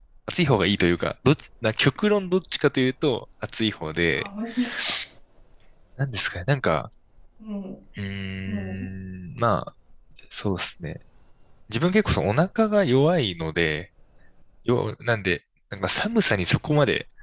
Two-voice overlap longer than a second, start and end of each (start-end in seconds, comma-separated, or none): none